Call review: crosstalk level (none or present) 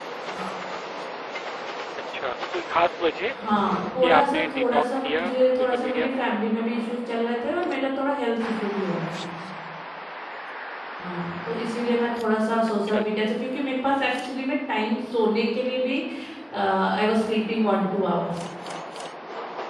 present